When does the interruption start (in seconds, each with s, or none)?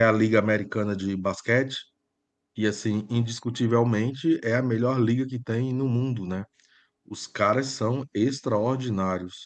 none